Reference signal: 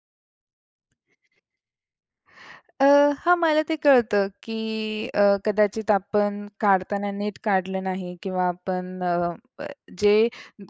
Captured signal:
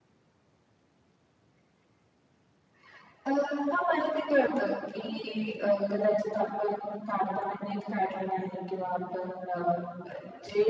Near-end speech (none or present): none